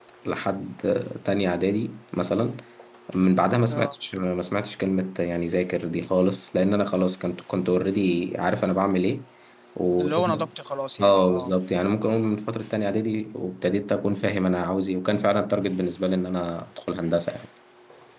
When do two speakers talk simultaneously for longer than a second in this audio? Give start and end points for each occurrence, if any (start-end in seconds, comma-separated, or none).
none